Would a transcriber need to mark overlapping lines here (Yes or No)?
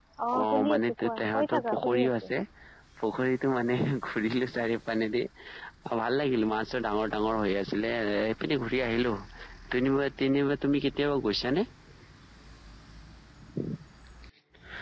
Yes